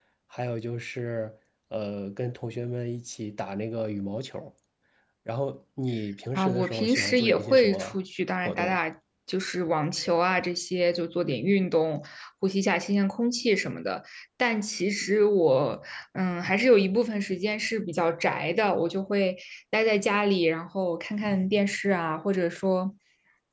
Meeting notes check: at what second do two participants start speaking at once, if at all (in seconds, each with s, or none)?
6.4 s